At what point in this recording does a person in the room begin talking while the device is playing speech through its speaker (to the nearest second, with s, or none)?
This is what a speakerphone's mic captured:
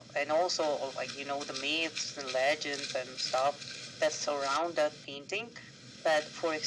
none